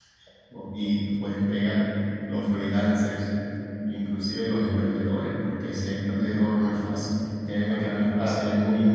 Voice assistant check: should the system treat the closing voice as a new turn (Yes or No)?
No